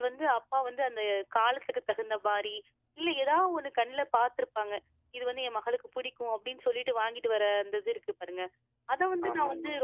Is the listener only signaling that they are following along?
Yes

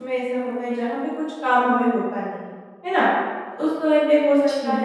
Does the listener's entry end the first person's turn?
No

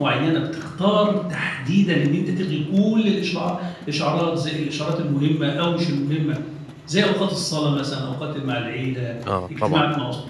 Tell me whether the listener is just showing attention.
Yes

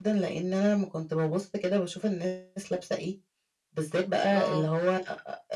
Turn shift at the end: No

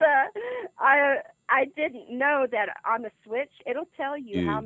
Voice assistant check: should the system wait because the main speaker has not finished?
Yes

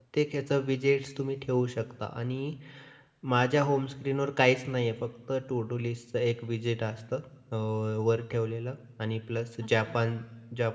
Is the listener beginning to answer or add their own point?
No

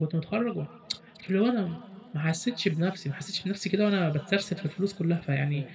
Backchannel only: Yes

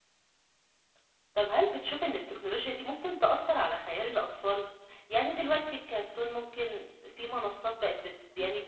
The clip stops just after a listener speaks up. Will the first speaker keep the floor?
Yes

